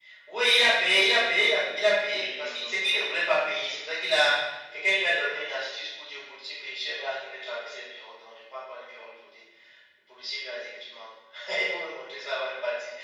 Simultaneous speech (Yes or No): Yes